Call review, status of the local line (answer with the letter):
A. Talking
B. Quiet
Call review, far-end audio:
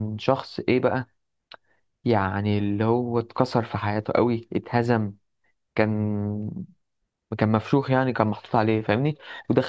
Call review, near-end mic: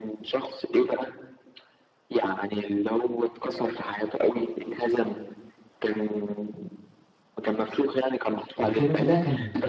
A